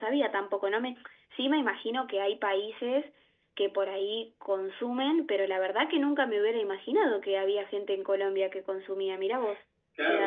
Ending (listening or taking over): taking over